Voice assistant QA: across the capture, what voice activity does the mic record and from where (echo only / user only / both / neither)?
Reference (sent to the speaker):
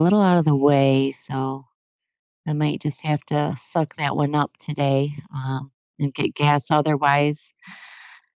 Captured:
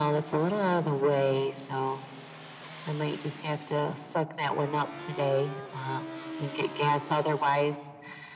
echo only